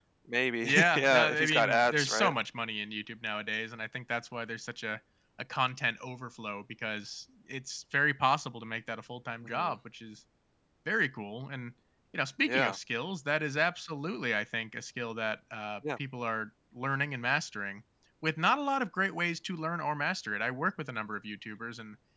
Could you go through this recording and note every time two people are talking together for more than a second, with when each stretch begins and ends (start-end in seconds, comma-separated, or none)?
0.7-2.3